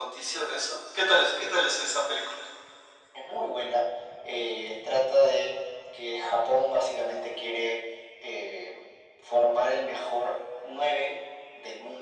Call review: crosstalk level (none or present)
none